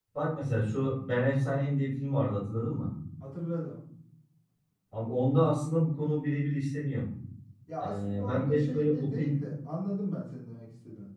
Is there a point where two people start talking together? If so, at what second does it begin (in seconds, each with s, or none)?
7.8 s